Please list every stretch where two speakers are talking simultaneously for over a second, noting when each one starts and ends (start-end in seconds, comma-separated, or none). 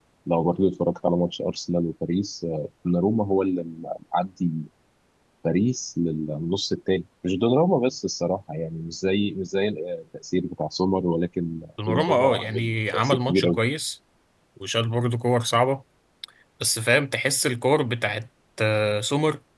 11.9-13.6